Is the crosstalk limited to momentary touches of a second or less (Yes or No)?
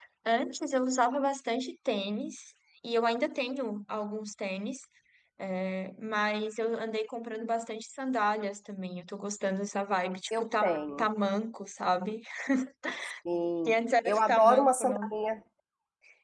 No